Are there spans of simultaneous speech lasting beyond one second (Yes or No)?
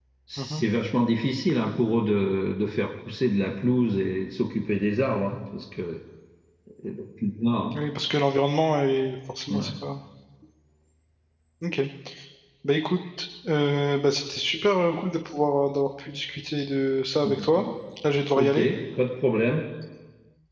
No